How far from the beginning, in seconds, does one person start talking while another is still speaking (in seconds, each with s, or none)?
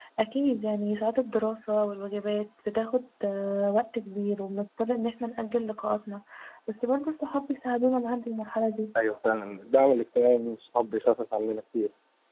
none